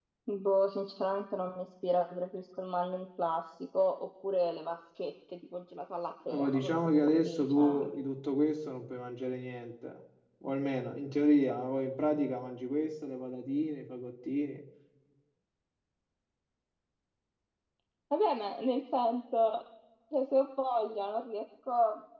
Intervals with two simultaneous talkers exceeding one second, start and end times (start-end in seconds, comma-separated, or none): 6.3-7.9